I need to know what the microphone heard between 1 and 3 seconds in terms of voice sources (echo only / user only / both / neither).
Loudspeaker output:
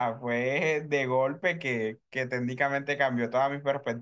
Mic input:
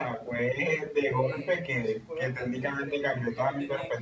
both